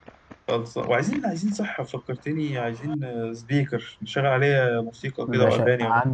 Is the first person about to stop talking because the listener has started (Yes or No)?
Yes